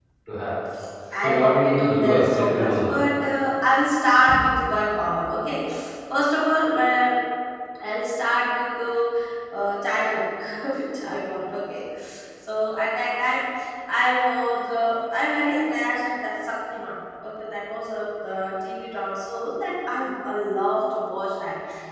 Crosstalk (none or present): present